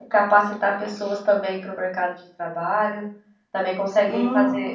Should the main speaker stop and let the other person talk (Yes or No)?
No